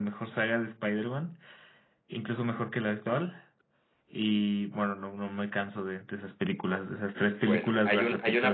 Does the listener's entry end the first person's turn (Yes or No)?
Yes